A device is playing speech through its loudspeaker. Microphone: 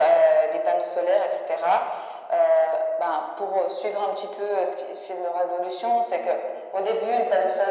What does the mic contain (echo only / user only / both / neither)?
echo only